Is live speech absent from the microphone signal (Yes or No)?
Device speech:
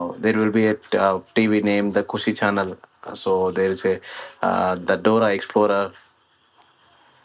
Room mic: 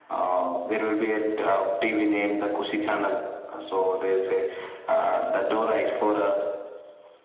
Yes